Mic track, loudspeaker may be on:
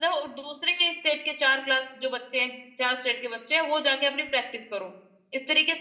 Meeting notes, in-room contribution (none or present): present